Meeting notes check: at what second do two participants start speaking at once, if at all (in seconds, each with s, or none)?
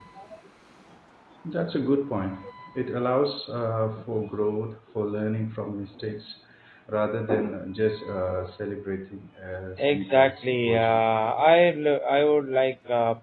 9.8 s